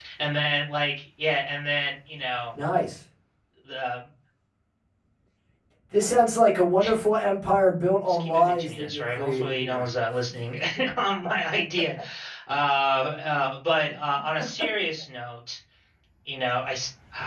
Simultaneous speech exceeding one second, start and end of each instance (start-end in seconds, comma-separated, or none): 8.1-9.8